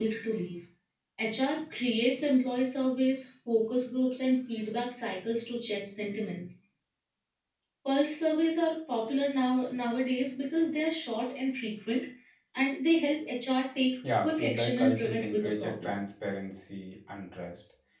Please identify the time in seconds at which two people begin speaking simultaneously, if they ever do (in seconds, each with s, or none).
14.0 s